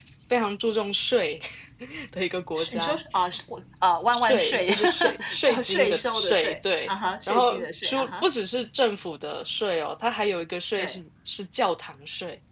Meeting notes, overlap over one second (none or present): present